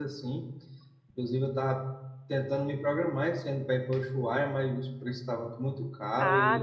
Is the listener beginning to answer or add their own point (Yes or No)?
Yes